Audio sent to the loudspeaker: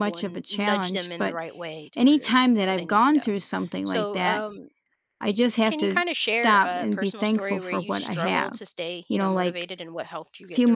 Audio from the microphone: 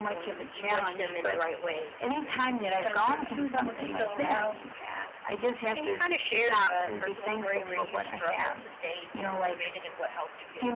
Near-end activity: present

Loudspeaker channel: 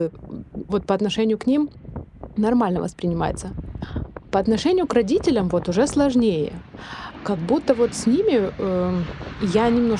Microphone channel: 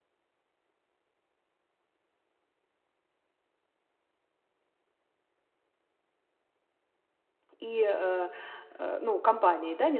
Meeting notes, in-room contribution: present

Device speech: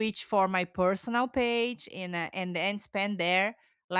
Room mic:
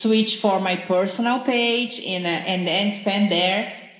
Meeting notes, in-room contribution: none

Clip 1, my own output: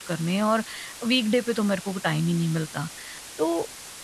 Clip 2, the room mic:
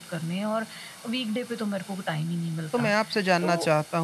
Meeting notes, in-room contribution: present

